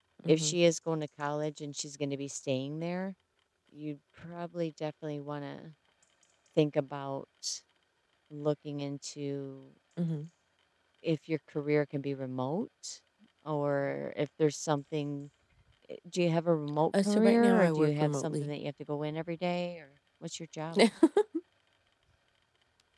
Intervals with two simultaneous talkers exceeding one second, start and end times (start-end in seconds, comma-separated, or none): 17.1-18.5